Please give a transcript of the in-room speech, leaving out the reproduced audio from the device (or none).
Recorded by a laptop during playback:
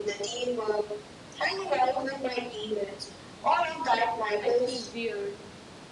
I feel weird.